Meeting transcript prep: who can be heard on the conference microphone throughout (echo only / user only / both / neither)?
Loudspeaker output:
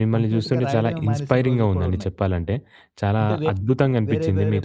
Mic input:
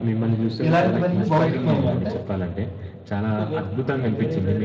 both